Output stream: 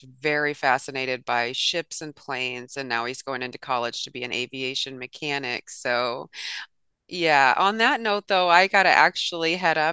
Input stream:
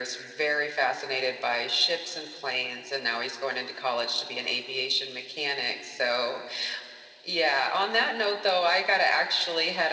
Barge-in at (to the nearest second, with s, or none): none